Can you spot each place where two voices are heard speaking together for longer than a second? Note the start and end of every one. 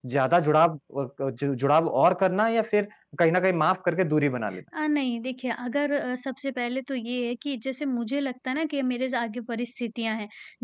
none

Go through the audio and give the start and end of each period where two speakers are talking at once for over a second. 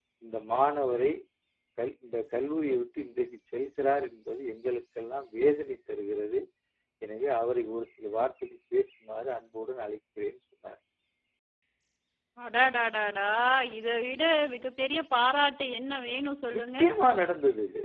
none

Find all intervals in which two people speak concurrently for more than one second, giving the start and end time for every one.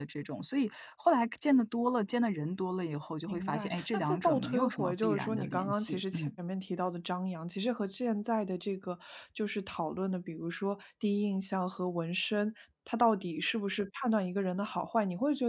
3.3-6.3

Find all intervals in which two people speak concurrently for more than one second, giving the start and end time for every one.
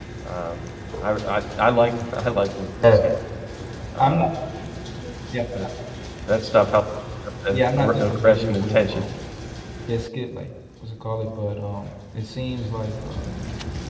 7.5-9.1

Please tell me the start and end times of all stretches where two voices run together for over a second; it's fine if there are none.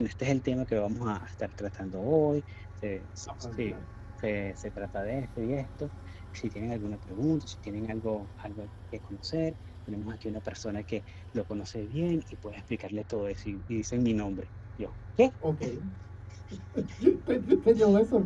none

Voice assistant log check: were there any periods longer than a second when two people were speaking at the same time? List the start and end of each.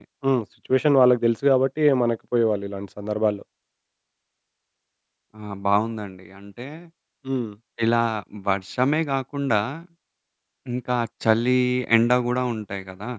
none

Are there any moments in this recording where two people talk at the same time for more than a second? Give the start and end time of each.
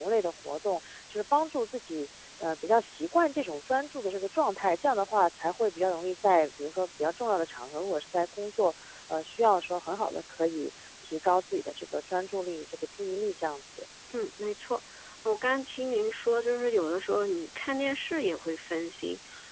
none

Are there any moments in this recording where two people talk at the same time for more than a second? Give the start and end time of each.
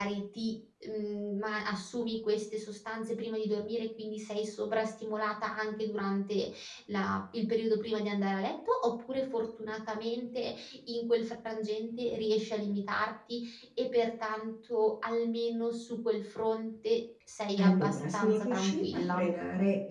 17.6-19.2

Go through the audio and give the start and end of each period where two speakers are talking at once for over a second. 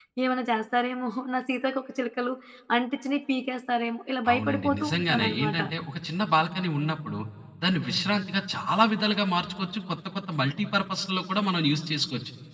4.3-5.6

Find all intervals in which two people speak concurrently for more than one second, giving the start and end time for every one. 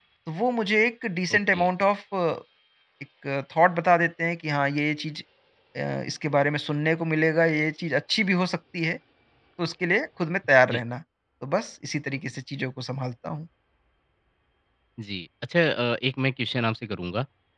none

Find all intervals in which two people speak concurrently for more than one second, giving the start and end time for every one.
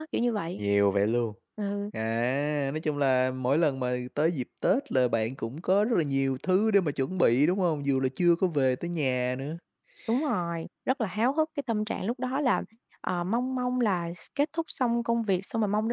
none

